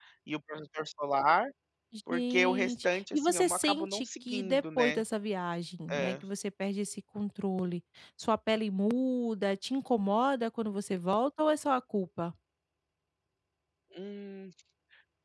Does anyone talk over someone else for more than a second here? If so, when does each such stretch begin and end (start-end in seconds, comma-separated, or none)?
2.1-5.0